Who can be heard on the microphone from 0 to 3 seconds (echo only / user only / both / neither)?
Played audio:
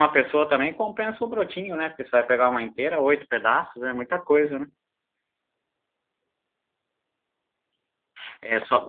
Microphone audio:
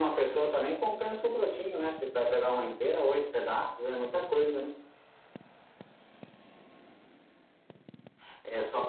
echo only